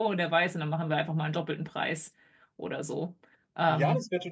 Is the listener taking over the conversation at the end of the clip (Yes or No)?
Yes